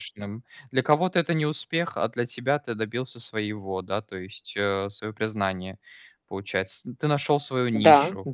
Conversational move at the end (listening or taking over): taking over